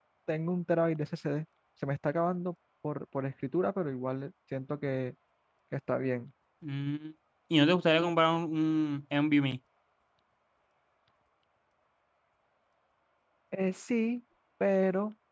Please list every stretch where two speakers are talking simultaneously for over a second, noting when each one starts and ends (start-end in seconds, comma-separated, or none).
none